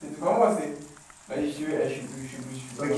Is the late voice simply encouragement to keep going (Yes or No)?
No